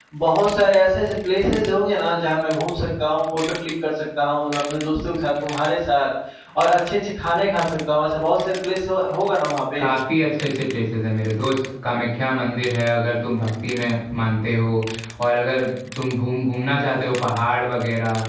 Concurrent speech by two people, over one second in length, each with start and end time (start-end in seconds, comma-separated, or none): none